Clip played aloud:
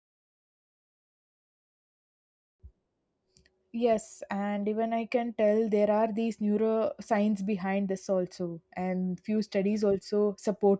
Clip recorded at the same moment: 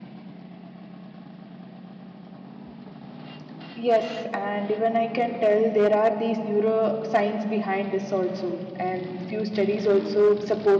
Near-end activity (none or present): none